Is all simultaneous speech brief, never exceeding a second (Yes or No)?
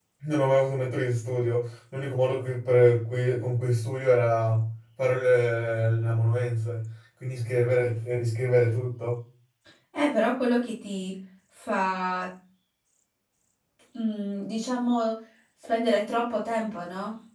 Yes